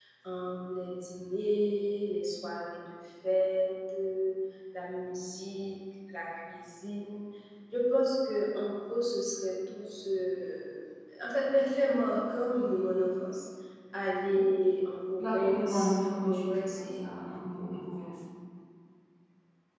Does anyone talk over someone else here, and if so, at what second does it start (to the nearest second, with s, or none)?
15 s